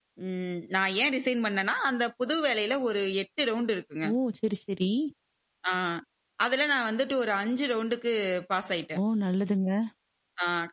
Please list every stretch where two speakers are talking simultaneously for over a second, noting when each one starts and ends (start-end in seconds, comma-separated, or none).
none